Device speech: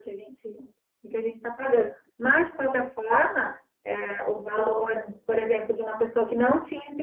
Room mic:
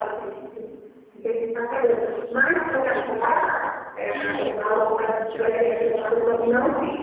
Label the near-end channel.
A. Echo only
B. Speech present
B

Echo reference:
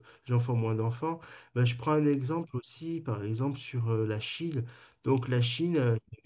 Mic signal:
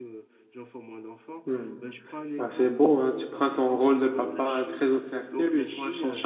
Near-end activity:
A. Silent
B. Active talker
B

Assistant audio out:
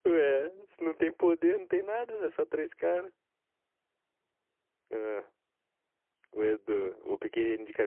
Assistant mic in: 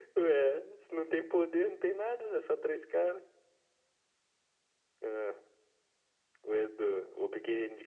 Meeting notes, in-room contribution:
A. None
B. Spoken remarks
A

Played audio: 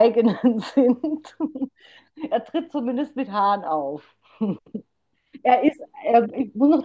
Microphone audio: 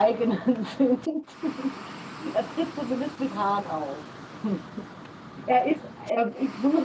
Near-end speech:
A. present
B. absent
B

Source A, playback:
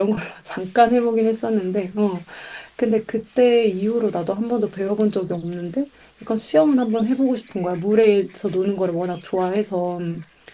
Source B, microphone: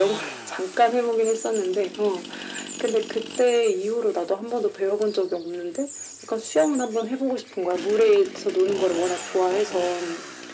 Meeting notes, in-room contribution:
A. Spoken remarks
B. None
B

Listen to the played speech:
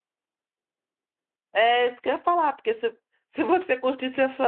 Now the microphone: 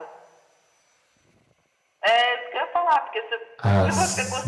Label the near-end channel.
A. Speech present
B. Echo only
A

